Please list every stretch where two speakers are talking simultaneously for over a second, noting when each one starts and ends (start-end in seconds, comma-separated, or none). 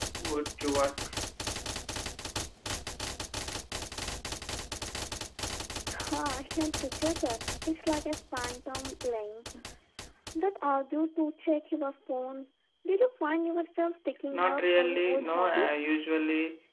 14.3-15.9